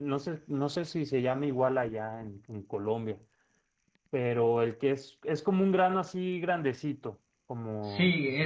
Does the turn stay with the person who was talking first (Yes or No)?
No